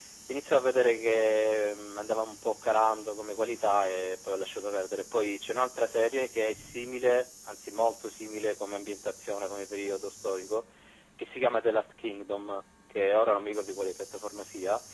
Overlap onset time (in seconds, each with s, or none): none